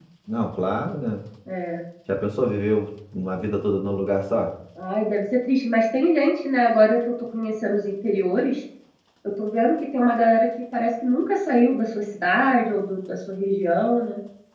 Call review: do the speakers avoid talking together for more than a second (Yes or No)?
Yes